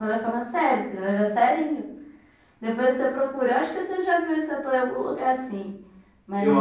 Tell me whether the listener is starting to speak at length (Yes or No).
Yes